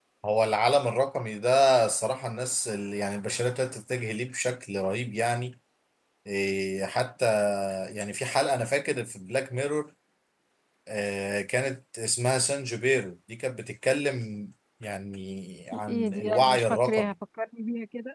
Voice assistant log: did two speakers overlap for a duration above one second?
Yes, from 15.9 s

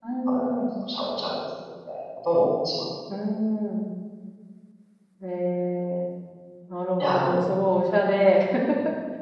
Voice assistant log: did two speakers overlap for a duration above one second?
No

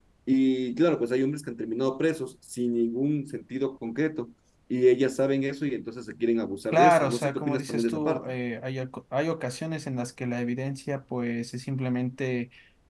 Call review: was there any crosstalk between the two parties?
Yes, from 6.7 s

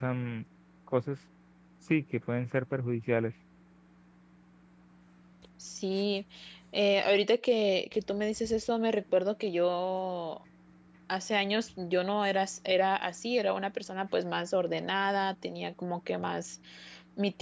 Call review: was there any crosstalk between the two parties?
No

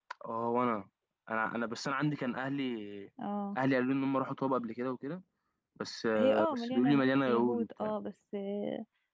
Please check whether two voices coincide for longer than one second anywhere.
Yes, from 6.2 s

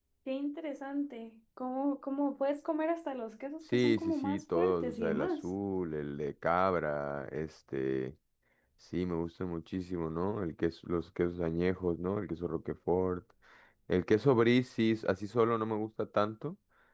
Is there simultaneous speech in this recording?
Yes, from 3.7 s

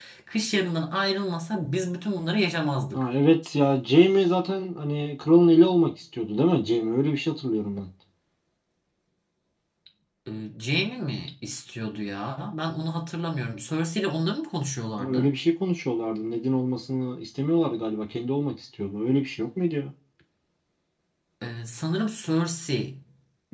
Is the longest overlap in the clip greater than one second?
No

